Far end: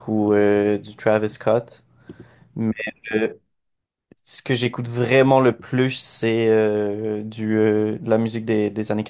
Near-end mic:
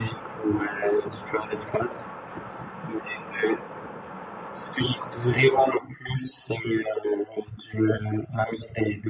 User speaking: No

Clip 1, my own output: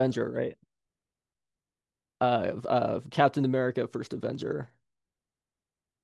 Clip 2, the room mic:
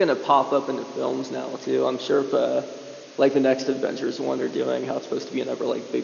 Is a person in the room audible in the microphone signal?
Yes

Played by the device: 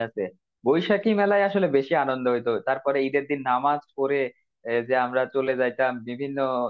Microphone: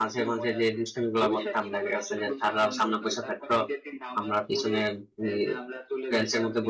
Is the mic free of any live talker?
No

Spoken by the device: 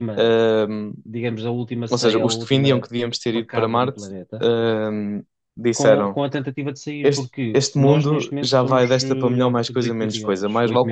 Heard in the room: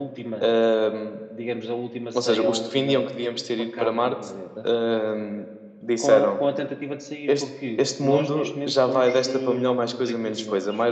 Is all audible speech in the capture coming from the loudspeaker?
Yes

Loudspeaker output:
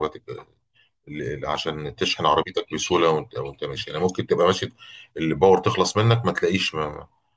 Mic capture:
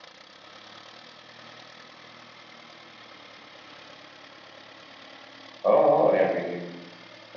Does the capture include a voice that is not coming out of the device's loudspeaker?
Yes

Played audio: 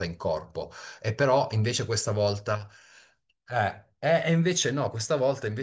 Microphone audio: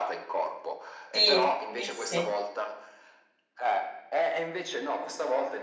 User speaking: Yes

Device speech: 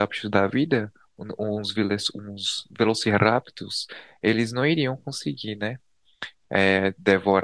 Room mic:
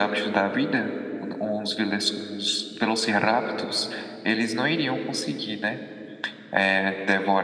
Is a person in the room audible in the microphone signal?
No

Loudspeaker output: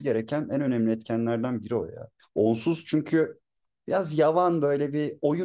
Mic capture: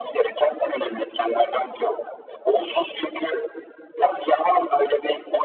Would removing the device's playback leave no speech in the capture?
Yes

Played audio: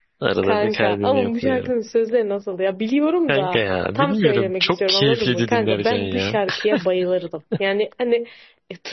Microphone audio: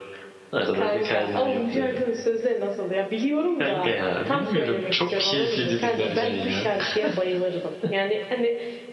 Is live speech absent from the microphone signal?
Yes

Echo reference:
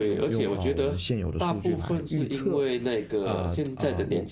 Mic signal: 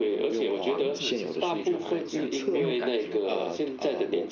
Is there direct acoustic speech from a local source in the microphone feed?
Yes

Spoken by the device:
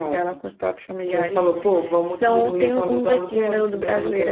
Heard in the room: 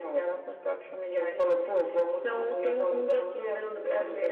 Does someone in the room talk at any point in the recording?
No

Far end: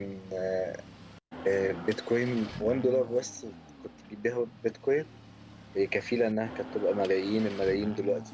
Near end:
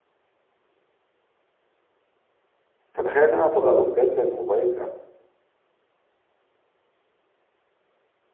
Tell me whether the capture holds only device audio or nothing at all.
No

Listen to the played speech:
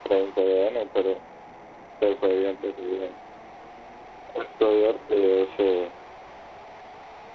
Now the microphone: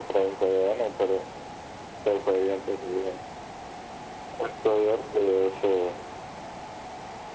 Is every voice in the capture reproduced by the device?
Yes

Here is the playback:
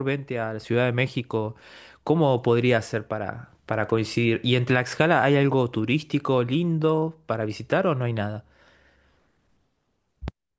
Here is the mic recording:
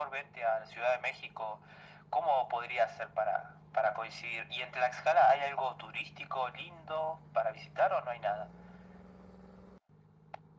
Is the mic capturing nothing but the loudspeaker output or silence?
Yes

